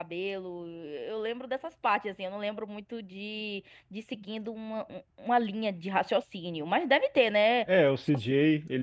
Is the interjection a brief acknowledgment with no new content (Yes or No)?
No